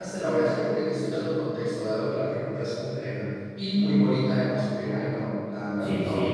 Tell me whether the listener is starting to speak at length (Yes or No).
Yes